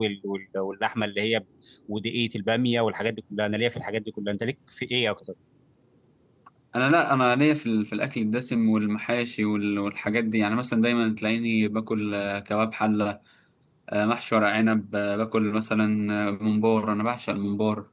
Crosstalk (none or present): none